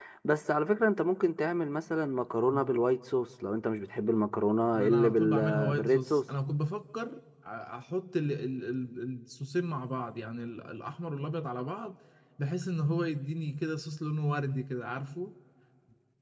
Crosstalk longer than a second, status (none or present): present